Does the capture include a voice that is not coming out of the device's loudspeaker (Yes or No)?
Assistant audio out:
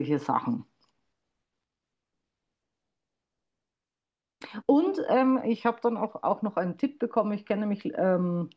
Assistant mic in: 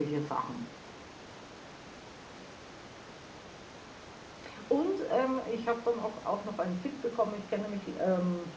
No